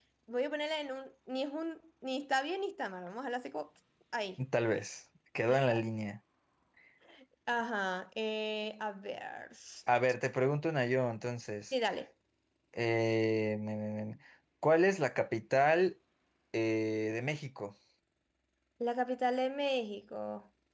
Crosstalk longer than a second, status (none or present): none